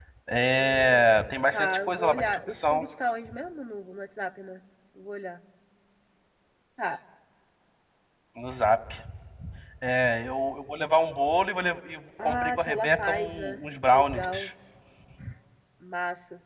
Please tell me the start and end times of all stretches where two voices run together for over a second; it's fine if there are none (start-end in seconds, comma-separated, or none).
1.5-2.8, 12.2-14.2